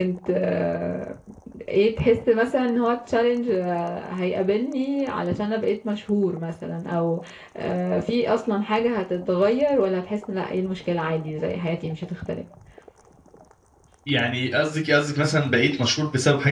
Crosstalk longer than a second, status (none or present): none